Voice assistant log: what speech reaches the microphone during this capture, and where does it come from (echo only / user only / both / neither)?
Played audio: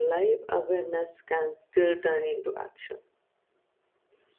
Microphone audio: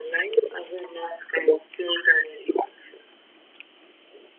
echo only